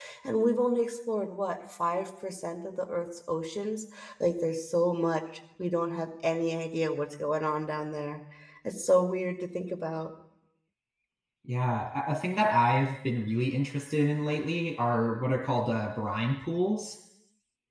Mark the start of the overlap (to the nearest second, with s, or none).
none